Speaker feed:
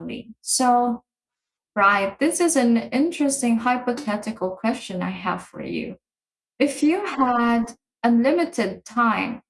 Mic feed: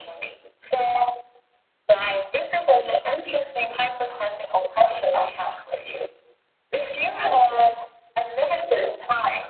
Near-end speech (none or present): none